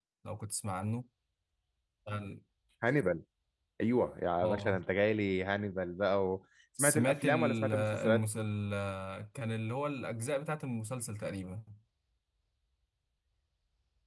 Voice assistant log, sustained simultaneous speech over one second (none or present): present